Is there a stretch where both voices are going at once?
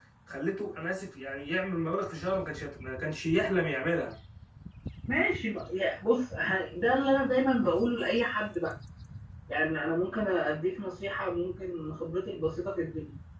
No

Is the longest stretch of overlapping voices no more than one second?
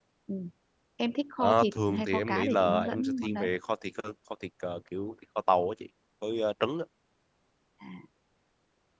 No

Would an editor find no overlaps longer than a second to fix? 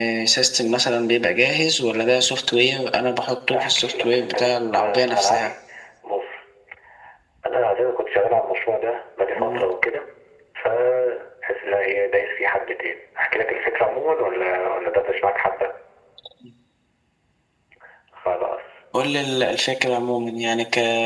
No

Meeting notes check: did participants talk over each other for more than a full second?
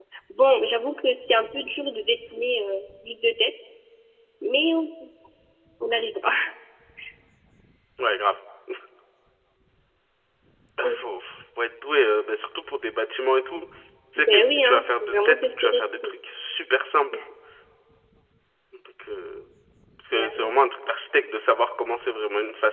Yes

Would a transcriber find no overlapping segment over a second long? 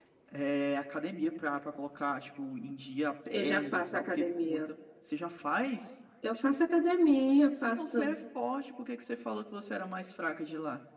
No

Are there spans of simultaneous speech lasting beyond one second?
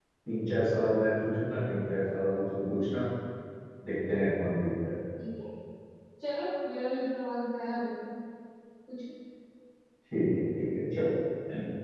No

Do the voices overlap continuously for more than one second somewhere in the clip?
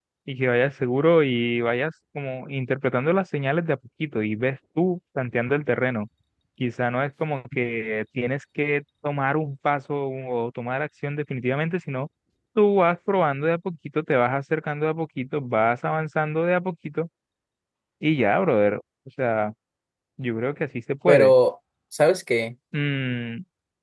No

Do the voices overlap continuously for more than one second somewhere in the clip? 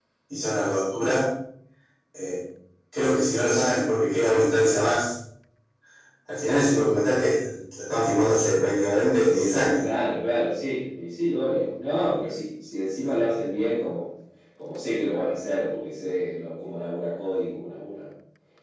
No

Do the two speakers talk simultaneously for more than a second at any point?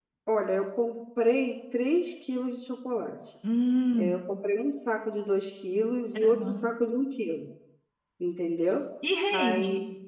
No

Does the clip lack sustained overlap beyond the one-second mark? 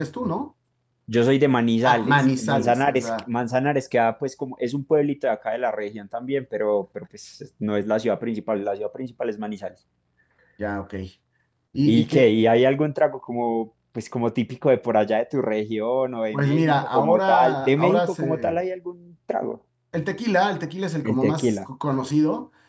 No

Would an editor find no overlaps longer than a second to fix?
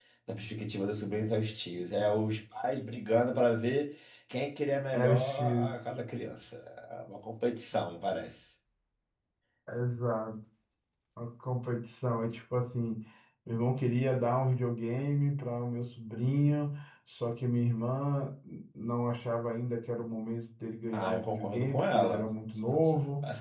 No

